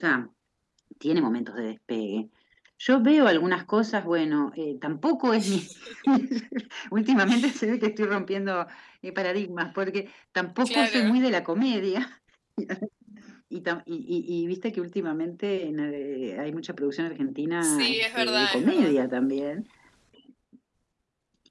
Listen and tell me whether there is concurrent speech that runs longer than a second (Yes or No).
Yes